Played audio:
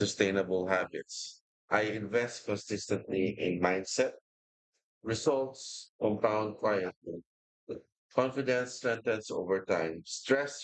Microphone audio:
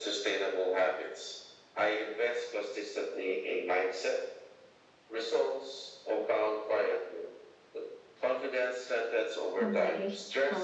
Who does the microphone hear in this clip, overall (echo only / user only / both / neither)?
both